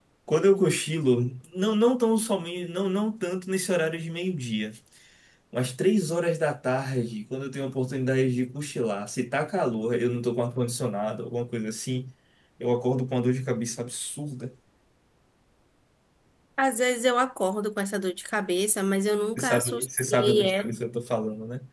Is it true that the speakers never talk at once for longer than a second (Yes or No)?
No